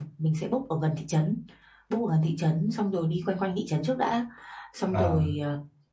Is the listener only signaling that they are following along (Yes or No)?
Yes